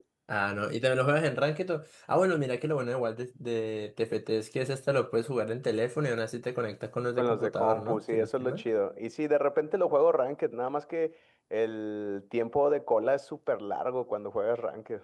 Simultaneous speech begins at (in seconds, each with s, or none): 7.2 s